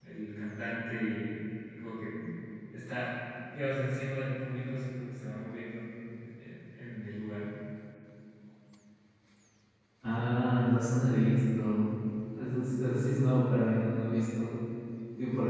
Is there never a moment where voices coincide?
Yes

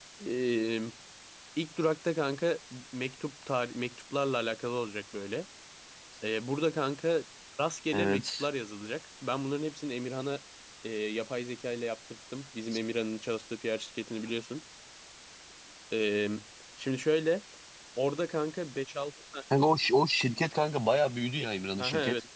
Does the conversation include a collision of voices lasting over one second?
No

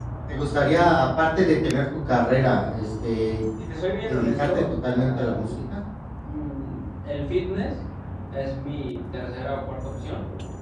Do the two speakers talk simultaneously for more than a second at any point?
Yes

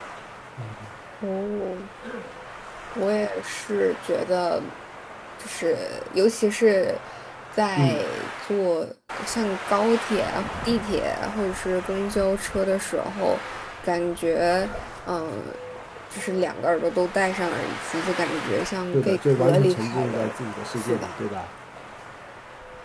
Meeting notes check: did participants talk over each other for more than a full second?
Yes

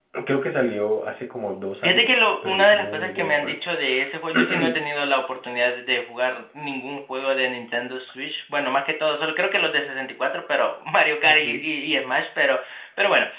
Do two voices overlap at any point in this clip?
Yes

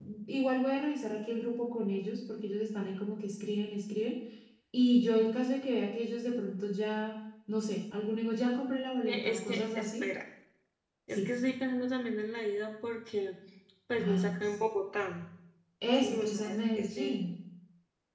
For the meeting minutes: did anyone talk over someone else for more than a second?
Yes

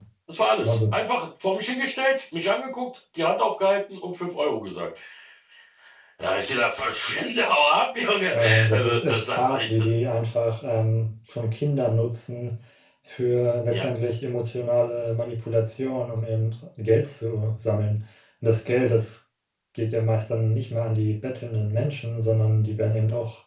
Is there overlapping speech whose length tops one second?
Yes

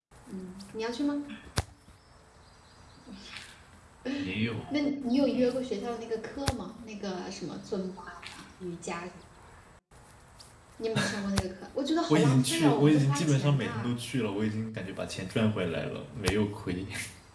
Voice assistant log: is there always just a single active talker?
No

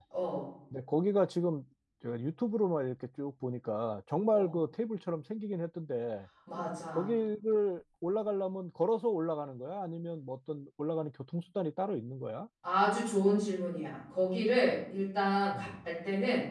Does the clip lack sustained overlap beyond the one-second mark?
Yes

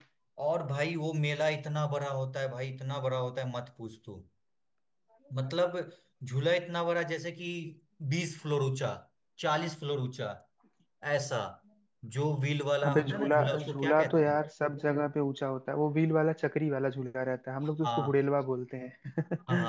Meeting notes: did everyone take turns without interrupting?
No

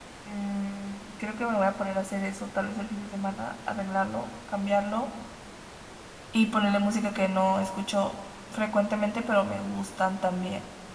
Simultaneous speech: No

